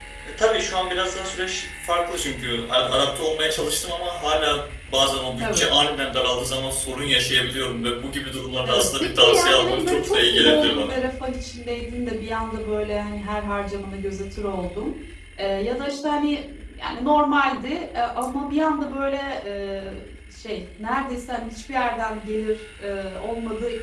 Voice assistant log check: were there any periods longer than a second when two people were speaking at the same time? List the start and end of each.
8.6-11.0

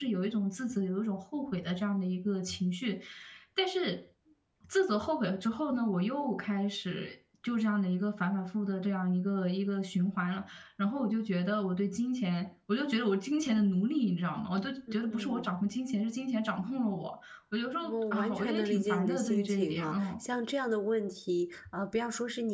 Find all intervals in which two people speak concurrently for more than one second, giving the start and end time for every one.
17.8-20.1

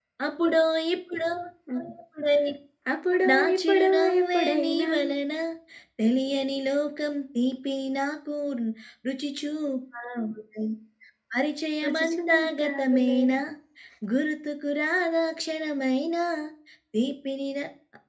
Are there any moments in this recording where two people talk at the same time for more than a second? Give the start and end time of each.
3.3-4.9, 11.8-13.2

